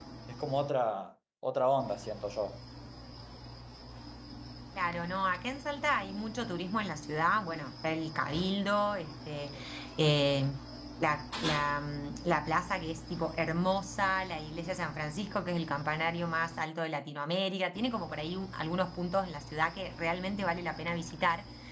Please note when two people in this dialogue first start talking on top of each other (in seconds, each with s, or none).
none